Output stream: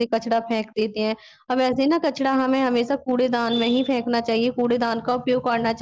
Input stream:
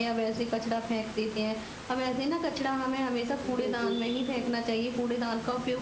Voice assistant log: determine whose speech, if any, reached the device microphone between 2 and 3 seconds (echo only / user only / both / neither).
echo only